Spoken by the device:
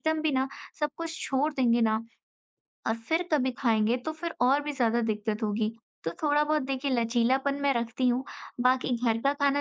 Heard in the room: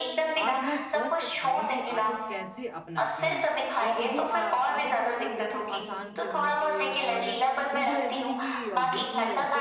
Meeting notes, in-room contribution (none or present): present